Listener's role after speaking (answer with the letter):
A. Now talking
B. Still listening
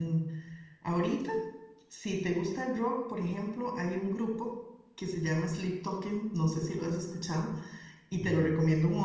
B